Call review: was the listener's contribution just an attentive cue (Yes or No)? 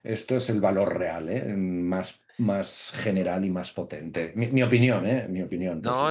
No